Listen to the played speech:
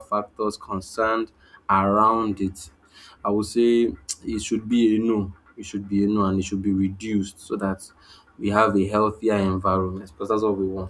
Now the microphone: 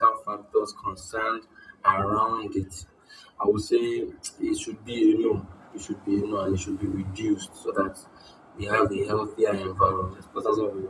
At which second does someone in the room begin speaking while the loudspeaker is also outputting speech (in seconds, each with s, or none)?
none